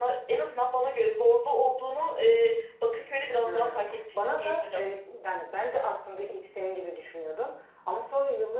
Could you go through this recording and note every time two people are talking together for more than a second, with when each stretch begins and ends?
3.4-4.9

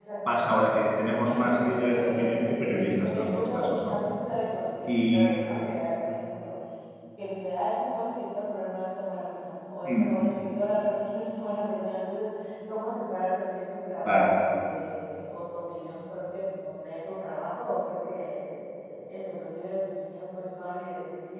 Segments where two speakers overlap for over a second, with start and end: 1.0-4.0

